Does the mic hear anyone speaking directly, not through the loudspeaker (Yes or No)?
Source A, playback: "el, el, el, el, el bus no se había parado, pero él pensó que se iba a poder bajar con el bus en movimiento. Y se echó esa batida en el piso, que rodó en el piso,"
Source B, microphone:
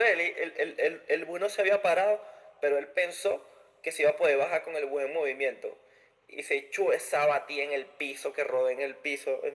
No